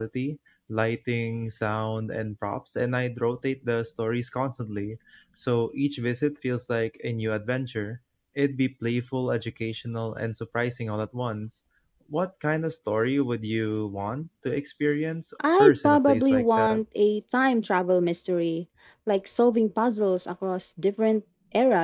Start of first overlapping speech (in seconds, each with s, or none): 15.4 s